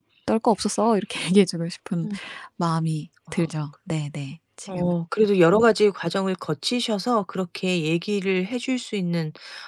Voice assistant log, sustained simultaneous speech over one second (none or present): none